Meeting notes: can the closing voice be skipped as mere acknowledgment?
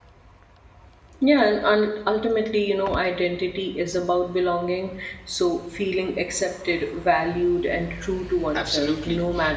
No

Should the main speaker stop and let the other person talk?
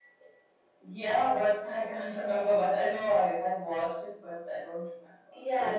Yes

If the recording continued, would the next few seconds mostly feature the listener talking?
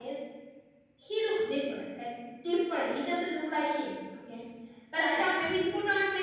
No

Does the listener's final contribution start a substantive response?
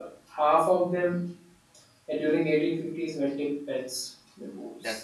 No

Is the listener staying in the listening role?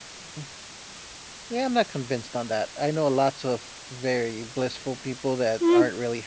No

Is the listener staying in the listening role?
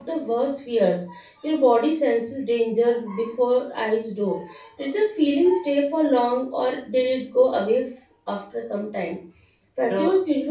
Yes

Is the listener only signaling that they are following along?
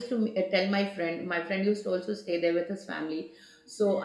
Yes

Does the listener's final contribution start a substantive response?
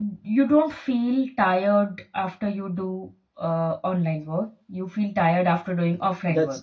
Yes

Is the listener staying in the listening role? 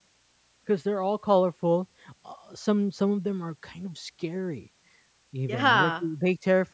Yes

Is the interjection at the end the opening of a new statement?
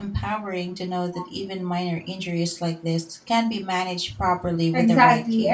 Yes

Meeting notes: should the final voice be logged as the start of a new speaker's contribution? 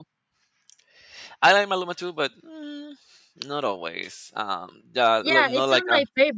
Yes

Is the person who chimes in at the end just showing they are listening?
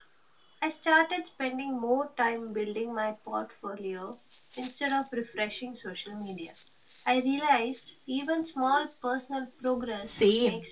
No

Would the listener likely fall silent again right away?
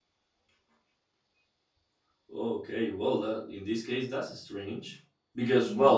Yes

